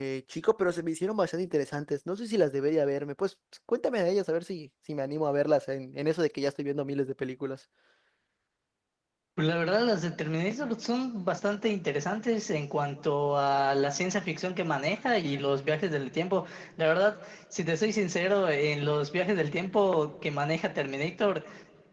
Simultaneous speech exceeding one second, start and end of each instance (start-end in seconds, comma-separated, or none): none